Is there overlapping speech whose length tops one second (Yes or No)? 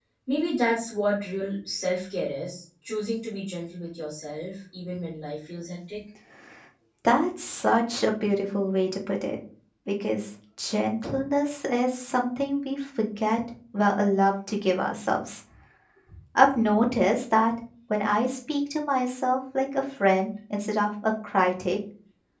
No